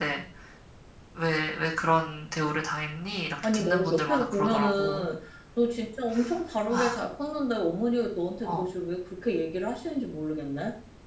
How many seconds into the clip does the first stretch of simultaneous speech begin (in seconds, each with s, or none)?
3.4 s